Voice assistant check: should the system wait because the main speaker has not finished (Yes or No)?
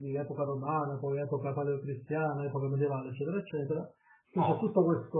Yes